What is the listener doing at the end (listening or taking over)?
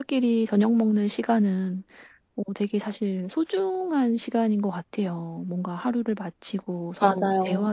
listening